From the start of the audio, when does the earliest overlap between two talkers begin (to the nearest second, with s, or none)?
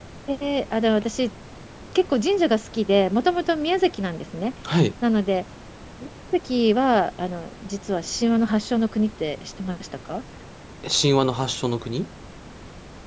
none